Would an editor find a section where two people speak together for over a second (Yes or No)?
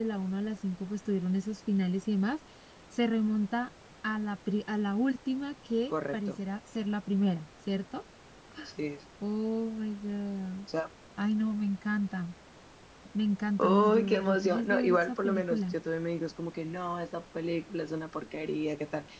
Yes